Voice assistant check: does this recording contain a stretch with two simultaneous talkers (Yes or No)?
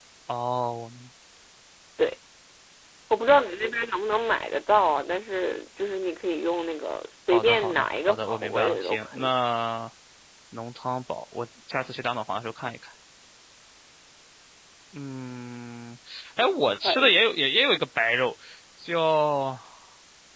Yes